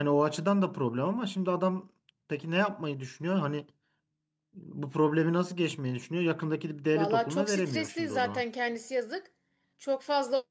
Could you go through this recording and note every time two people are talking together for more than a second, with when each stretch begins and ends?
6.9-8.4

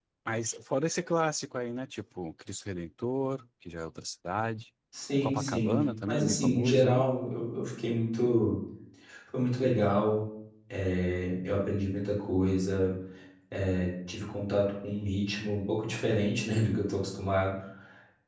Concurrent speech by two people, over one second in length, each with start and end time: 5.2-7.0

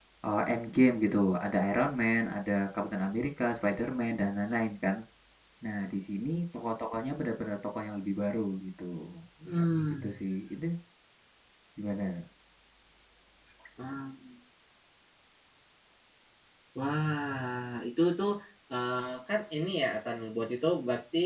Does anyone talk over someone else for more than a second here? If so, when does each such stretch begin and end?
none

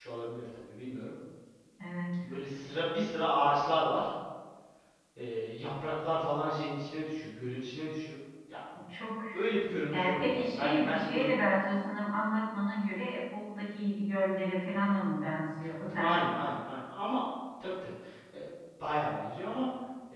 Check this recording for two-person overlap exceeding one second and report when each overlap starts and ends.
9.9-11.3

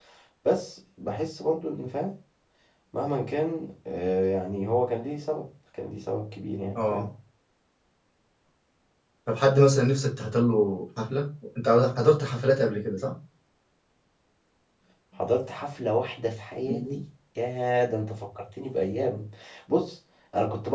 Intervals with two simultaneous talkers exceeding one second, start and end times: none

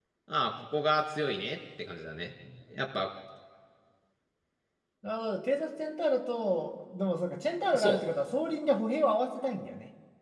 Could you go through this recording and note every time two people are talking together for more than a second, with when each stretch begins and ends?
none

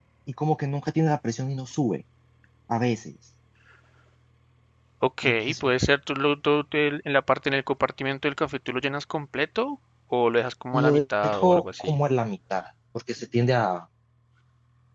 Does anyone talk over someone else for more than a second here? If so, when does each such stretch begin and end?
10.7-12.0

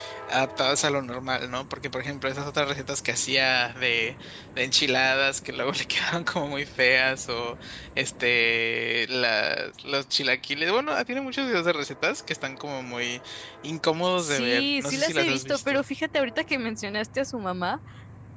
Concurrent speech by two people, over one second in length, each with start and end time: 14.2-15.8

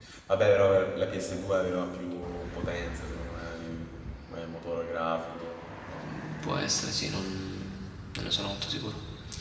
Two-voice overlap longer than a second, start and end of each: none

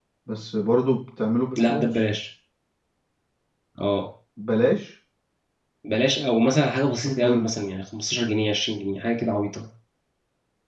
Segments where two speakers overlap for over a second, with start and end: none

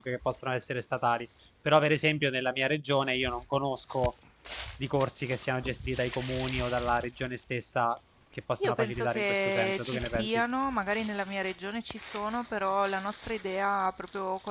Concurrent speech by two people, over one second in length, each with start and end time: 8.6-10.4

